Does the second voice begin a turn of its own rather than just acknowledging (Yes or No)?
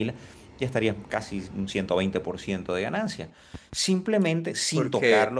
No